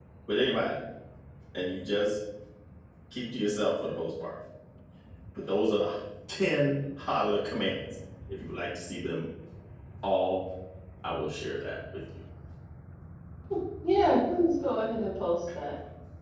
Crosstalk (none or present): none